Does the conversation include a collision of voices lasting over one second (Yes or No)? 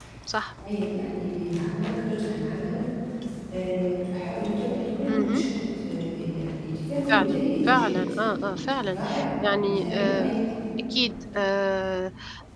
Yes